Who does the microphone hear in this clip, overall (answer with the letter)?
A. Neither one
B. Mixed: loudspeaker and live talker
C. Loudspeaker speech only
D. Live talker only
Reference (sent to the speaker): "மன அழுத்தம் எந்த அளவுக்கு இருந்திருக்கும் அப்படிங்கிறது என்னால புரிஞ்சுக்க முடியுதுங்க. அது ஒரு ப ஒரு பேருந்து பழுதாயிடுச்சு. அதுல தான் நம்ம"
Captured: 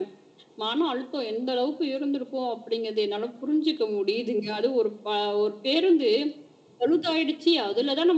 C